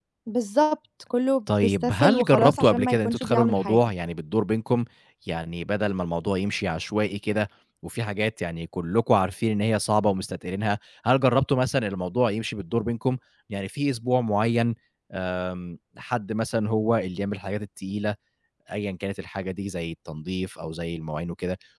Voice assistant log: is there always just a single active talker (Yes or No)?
No